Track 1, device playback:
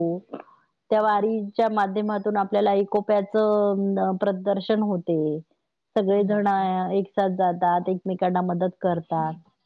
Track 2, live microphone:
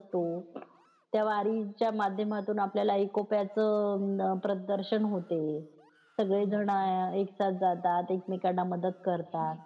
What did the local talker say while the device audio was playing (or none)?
none